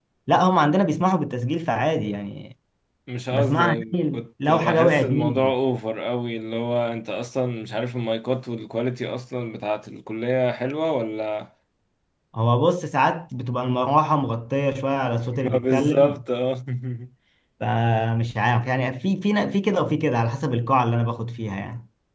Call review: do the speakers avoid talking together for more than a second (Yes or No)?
No